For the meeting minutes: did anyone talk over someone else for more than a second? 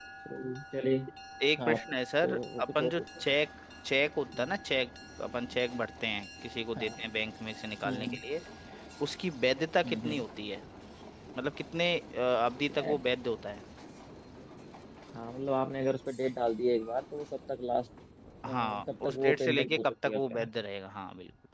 Yes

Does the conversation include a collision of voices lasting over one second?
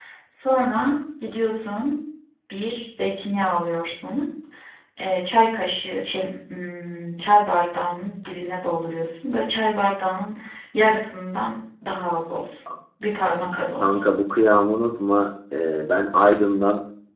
No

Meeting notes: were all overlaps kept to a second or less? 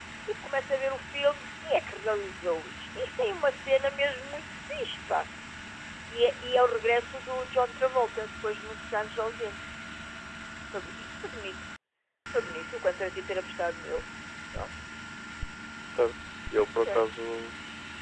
Yes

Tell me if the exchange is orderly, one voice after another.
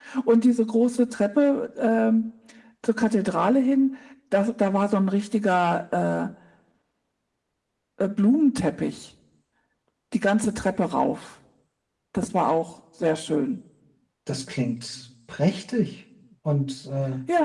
Yes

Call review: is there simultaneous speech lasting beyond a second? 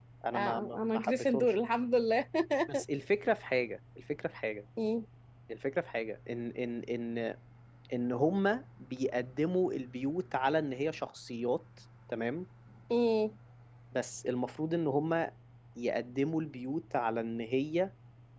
Yes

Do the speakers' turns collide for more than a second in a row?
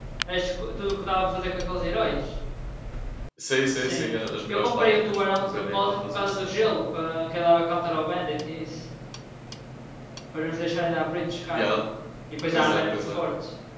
Yes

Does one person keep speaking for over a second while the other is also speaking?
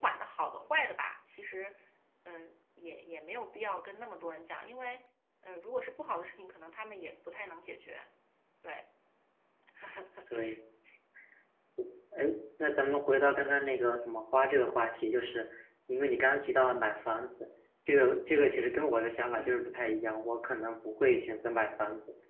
No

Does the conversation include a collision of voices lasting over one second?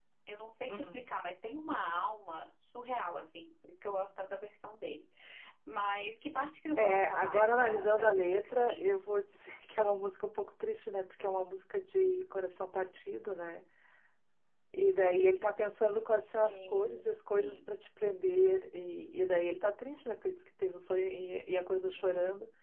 Yes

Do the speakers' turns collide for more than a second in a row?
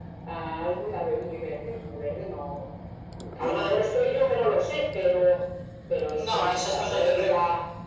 Yes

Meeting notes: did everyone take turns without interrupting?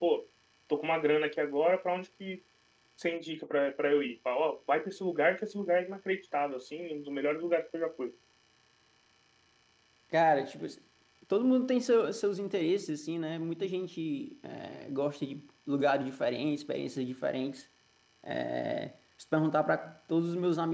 Yes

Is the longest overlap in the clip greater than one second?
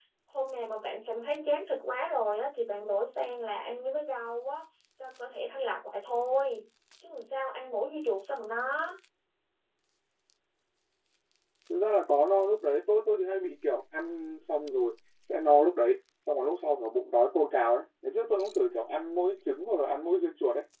No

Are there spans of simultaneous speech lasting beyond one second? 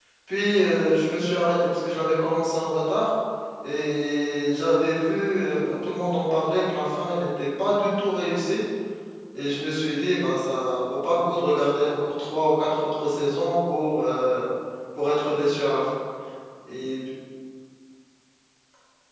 No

